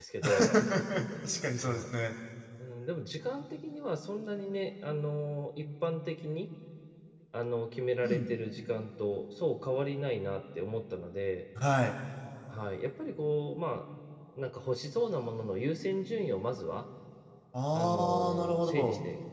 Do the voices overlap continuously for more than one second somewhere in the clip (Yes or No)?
Yes